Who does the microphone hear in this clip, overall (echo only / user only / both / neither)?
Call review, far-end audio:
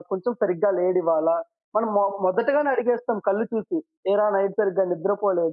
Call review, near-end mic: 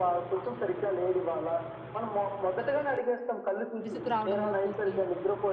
both